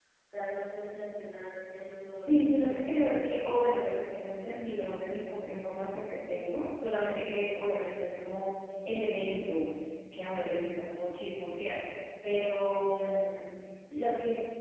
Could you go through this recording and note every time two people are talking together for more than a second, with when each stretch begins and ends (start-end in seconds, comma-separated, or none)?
2.1-3.7